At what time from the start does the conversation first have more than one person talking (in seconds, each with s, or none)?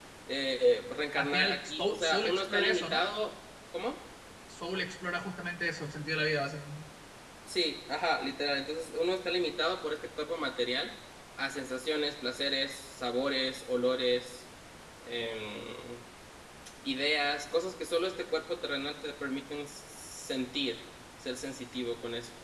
1.1 s